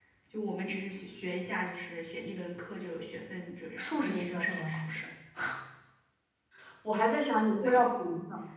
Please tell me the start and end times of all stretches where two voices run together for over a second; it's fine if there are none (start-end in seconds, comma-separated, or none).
3.8-5.0